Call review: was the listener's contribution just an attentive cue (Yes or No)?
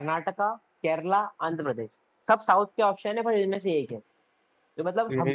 Yes